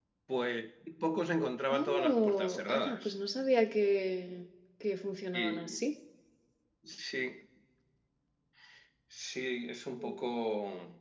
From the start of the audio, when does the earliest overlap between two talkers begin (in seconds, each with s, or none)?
1.7 s